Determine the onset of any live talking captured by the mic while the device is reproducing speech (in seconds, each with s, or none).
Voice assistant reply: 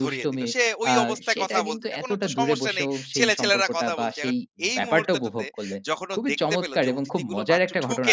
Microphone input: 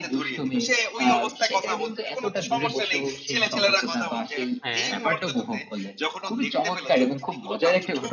4.7 s